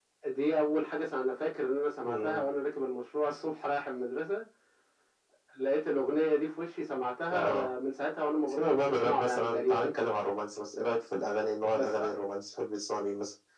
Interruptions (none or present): present